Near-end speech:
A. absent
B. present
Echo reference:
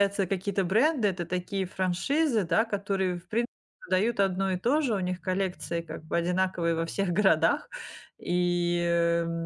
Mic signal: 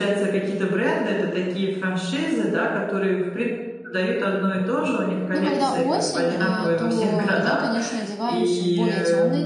B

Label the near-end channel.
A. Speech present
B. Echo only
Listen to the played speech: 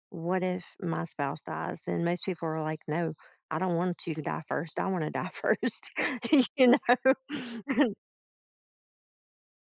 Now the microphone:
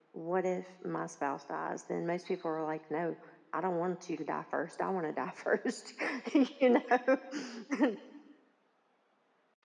B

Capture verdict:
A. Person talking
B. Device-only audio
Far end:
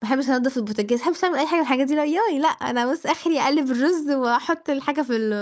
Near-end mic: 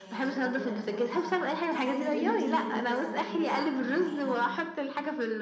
A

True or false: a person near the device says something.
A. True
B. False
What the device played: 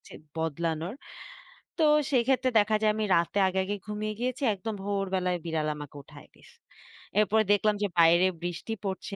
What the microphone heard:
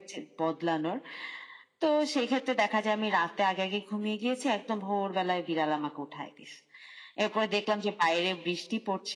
B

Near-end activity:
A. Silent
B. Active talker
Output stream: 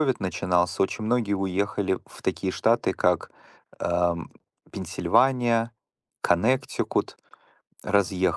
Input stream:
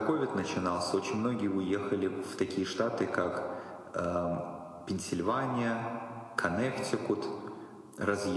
A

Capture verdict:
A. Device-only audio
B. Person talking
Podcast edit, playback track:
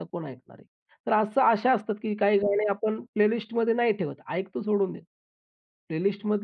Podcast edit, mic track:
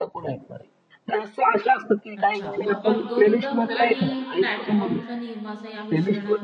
B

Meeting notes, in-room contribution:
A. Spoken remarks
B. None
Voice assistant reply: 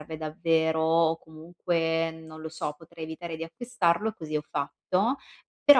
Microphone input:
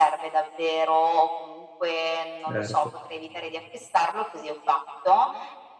A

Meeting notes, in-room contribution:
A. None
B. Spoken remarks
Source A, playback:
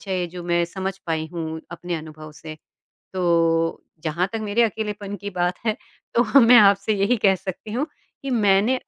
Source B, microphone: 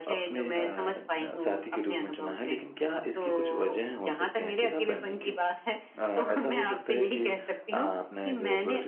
B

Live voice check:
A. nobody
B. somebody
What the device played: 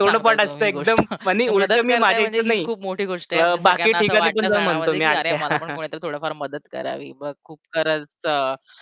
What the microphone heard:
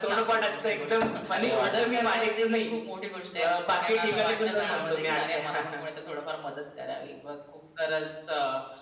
B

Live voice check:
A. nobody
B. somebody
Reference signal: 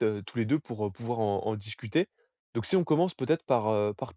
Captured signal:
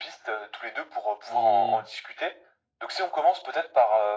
B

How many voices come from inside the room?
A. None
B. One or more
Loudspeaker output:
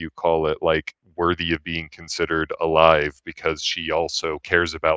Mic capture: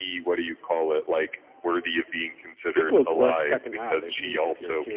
B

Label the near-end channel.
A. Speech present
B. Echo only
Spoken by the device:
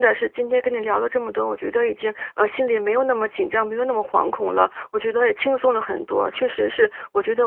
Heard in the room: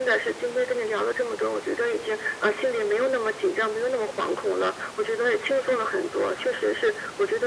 B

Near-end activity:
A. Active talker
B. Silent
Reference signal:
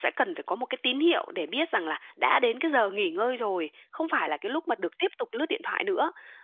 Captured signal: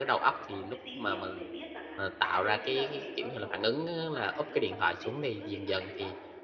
A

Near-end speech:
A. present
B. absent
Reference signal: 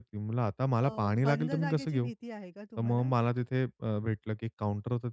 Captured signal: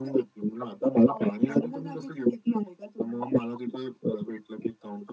B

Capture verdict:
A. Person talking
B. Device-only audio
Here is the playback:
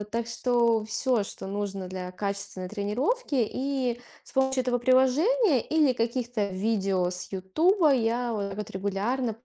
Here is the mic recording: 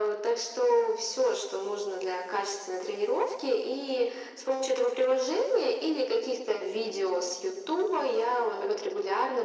B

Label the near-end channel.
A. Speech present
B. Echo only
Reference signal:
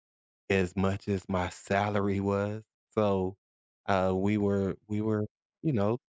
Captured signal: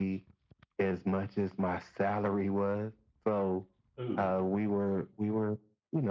A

